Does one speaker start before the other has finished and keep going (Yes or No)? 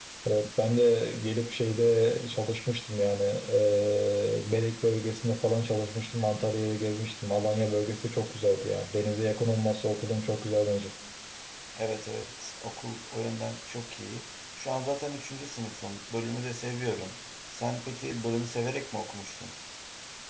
No